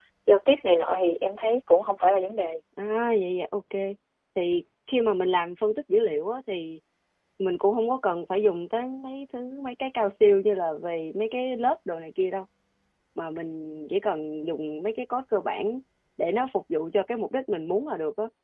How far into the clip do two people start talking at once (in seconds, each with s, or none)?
none